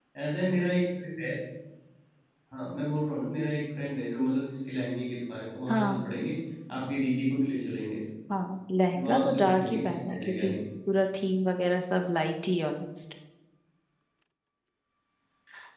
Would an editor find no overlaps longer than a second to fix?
No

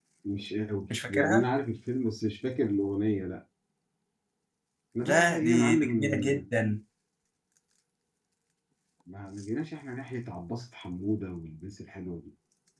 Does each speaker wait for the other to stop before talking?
No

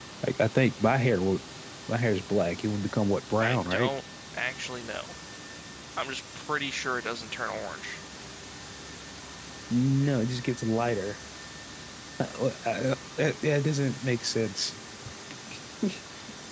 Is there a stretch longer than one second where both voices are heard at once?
No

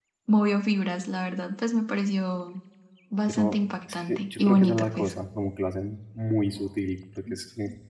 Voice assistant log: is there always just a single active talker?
No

